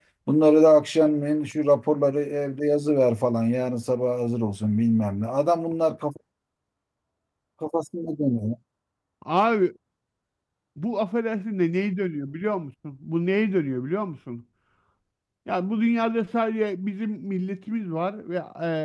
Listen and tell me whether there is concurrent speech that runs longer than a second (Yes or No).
No